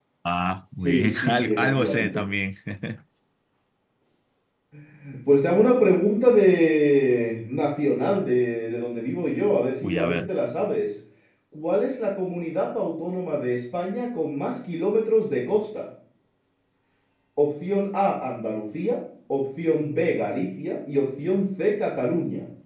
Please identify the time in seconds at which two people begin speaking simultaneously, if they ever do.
0.8 s

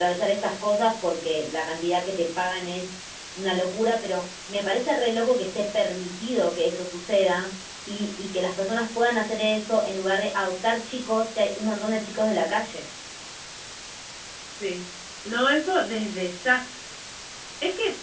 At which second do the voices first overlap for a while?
none

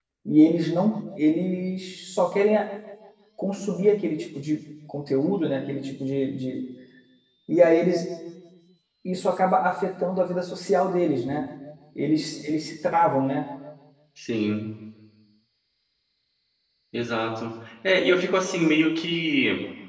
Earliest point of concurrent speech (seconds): none

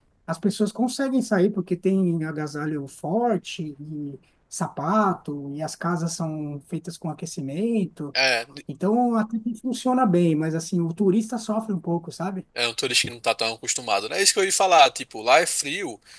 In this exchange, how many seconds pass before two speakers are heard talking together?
none

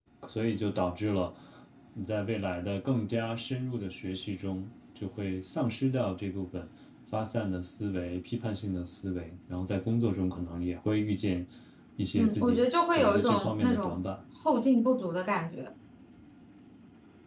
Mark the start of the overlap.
12.2 s

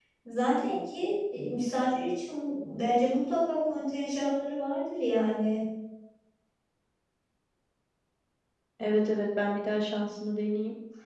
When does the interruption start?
none

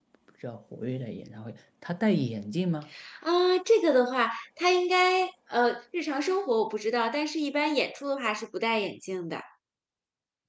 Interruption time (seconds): none

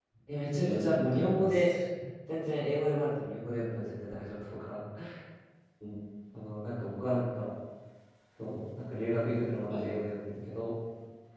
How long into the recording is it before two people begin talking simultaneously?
0.5 s

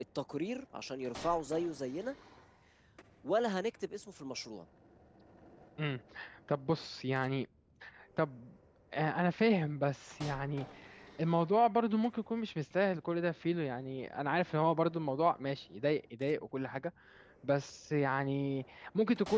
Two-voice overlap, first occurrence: none

